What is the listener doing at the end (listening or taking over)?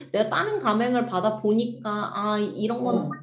listening